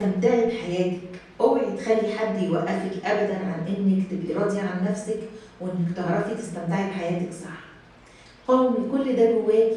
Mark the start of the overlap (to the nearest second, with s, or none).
none